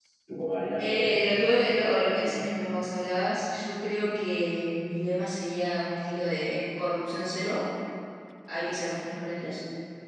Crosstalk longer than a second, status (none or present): present